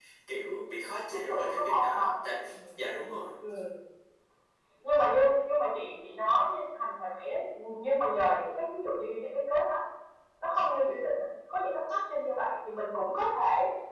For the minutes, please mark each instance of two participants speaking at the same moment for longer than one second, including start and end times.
1.1-2.8

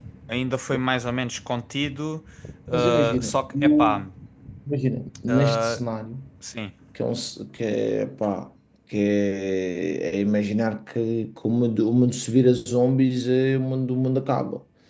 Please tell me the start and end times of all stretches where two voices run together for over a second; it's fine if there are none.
2.7-4.0

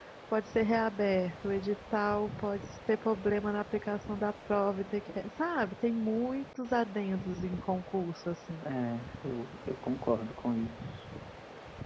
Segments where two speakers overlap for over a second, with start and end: none

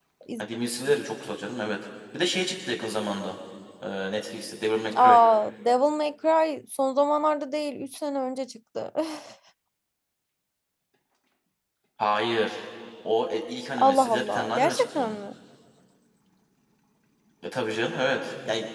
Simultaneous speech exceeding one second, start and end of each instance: 13.8-15.2

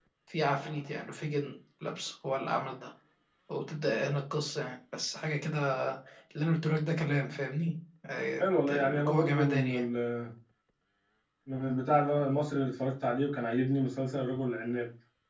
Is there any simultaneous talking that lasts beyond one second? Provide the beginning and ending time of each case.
8.4-9.8

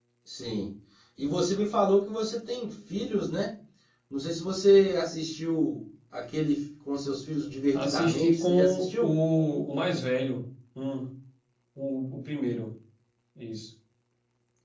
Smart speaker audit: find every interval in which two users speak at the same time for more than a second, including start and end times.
7.7-9.1

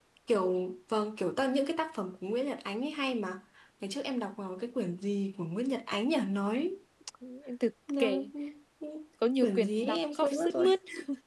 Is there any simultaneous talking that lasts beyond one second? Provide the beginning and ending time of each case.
9.4-10.7

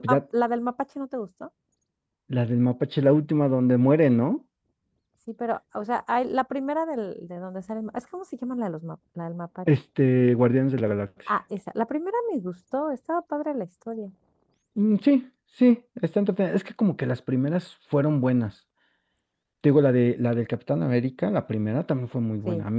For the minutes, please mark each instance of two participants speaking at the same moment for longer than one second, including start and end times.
none

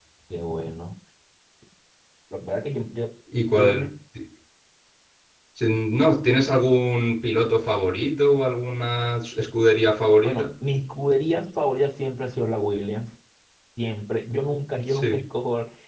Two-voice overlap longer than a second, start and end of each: none

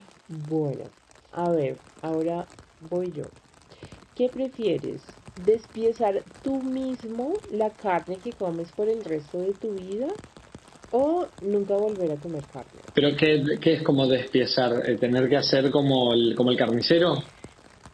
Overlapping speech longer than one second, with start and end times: none

